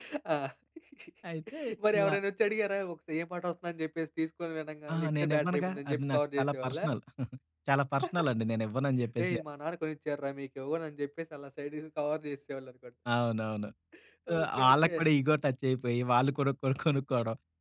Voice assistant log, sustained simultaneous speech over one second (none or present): present